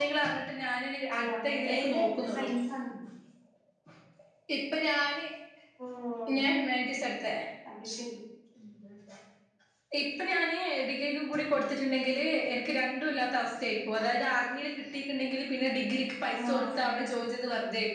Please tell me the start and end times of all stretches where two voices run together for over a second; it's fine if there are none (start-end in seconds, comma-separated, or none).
1.1-2.5